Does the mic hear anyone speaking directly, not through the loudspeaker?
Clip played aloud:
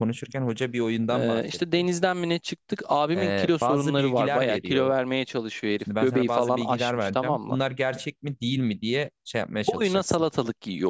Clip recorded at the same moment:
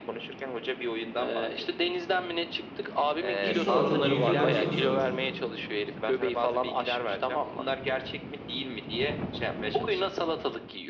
Yes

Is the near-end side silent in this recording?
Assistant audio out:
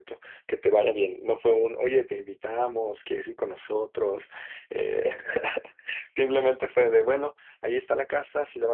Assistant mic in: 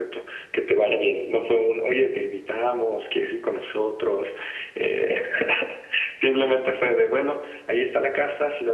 Yes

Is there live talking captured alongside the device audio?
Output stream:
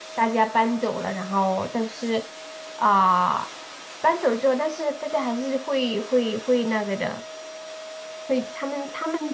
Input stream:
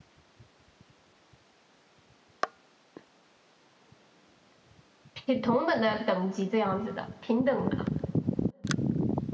Yes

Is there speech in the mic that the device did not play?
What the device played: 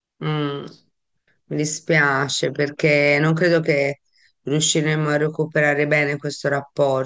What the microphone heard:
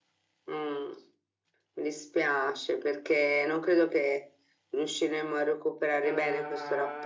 Yes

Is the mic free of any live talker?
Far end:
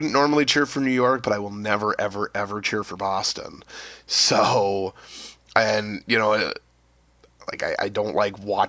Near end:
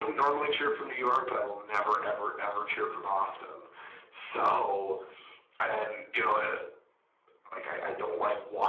Yes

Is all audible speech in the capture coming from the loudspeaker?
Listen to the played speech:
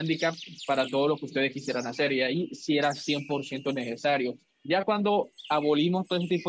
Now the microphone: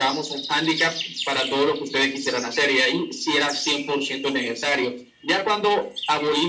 Yes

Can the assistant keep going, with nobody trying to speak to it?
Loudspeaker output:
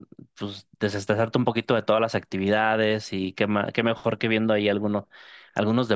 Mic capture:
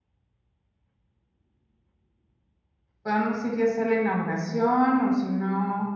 No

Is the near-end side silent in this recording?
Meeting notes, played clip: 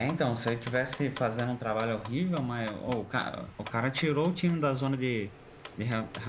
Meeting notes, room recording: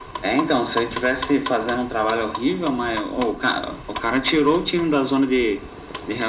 Yes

